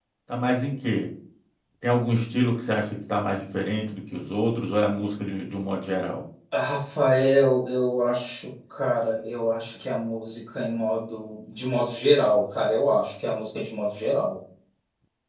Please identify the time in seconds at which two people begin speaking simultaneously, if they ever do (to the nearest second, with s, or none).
none